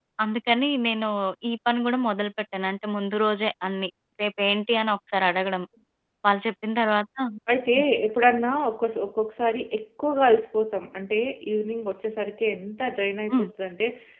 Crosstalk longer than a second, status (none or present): none